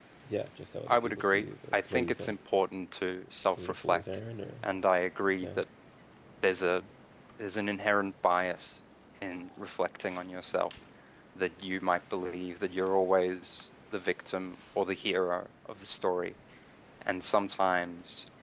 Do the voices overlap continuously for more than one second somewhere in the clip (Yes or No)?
Yes